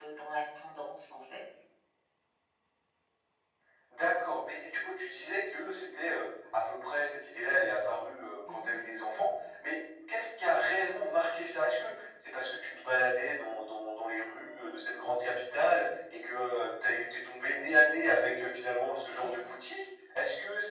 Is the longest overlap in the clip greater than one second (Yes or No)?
No